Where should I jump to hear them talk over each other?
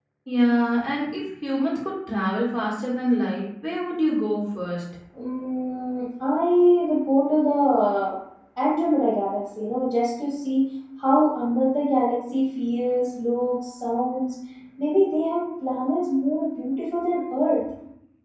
none

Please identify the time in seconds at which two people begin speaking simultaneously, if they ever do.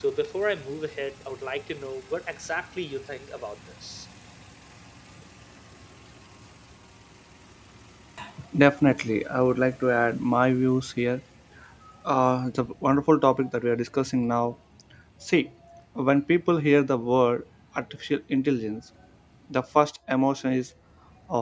none

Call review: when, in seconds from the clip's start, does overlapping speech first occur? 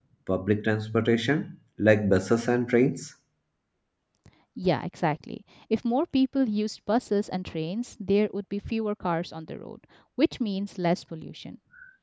none

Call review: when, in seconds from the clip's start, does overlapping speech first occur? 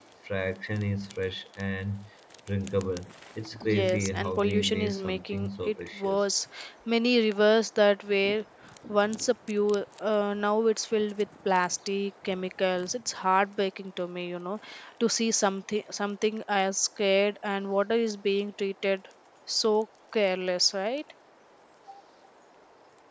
4 s

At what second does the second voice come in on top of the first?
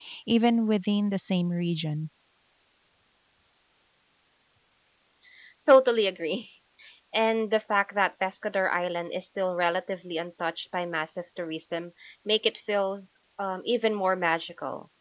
none

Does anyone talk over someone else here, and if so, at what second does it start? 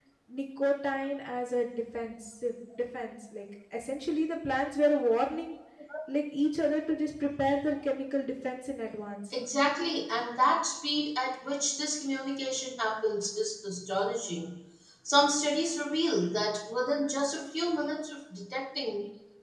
none

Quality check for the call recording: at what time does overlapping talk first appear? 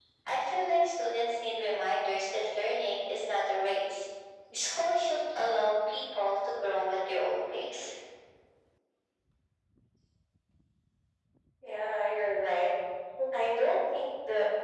none

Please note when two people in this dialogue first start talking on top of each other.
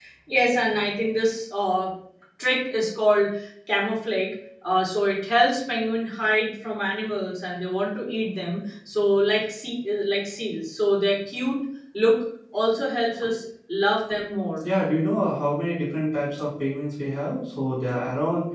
none

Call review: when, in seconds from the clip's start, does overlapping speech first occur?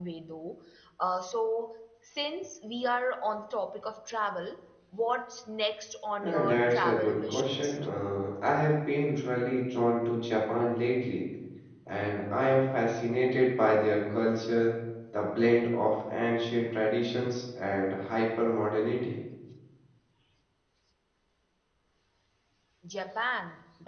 6 s

